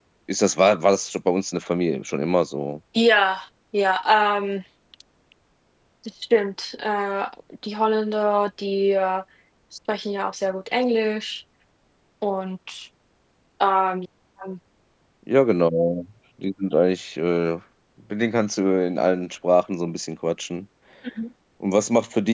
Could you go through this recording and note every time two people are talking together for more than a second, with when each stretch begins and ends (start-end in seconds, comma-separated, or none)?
none